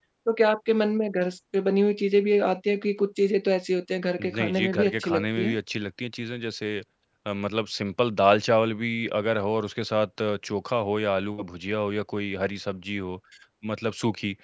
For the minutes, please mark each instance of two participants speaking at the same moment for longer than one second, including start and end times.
4.2-5.5

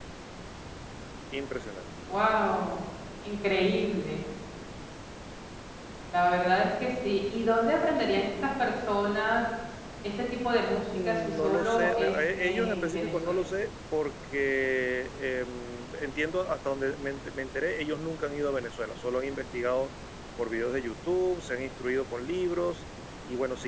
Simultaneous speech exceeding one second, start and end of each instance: 11.0-13.4

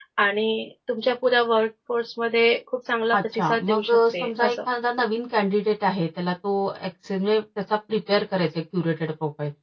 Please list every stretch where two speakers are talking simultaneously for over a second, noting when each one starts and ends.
3.3-4.6

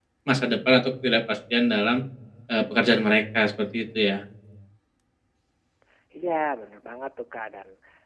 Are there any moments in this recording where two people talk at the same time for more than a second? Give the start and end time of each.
none

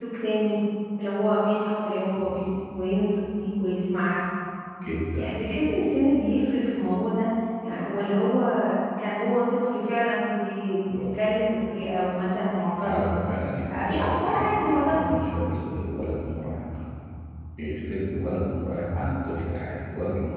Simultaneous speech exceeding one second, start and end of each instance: 13.7-15.0

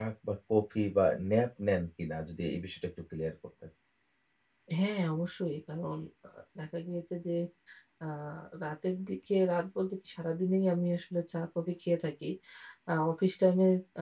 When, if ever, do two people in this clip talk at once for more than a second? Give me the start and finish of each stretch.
none

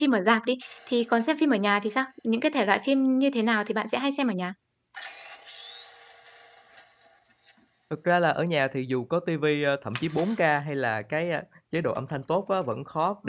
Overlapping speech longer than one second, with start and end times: none

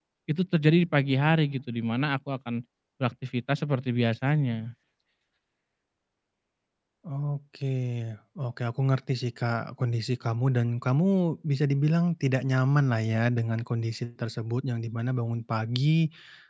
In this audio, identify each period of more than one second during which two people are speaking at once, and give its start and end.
none

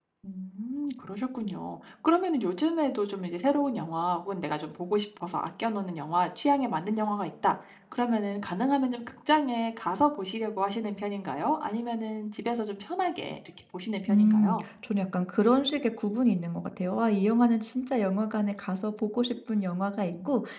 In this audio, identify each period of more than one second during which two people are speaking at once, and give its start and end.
none

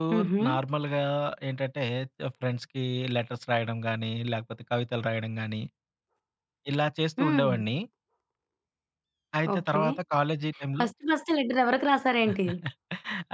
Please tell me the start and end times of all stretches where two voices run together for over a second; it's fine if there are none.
none

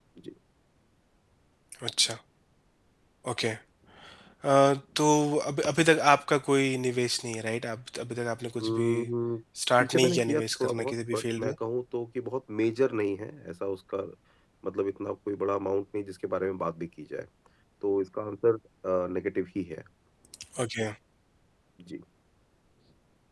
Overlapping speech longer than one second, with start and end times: 9.8-11.5

